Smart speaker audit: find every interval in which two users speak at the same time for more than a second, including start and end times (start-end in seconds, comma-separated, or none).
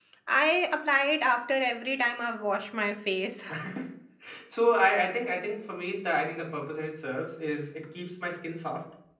none